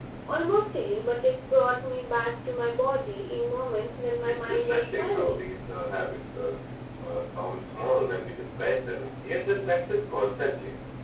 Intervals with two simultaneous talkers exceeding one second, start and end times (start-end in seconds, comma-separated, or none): 4.2-5.4